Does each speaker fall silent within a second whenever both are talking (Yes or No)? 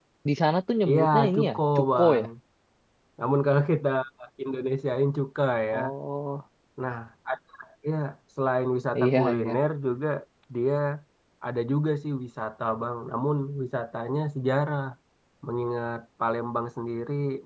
No